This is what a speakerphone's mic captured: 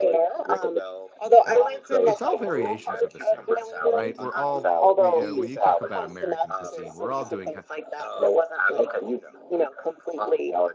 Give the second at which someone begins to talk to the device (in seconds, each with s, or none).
2.0 s